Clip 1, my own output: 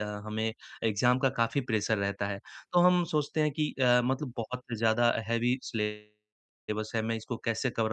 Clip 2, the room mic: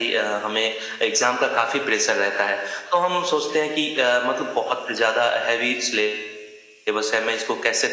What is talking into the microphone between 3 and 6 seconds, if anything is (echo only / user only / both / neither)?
echo only